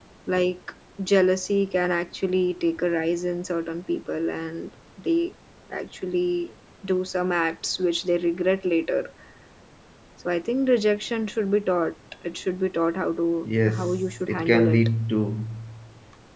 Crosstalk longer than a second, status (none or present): present